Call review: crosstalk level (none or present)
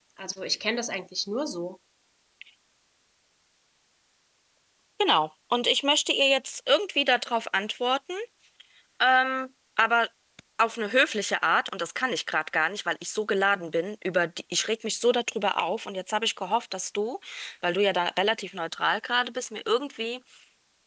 none